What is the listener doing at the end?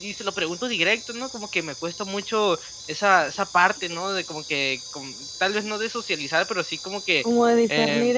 taking over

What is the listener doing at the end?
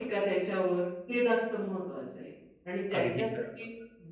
listening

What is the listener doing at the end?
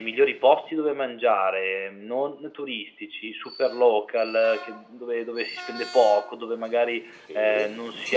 listening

